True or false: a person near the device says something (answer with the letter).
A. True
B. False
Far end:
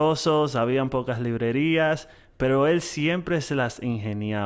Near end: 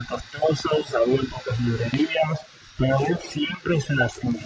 B